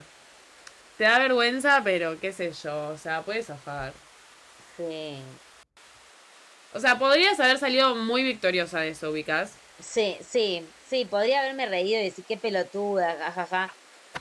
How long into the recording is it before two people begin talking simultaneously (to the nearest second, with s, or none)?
none